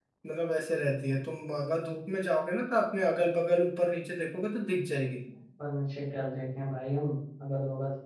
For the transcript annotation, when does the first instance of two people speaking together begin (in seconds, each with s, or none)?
none